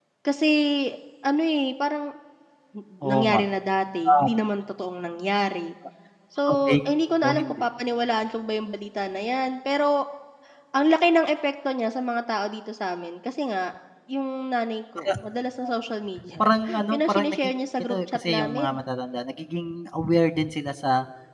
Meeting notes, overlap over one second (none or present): present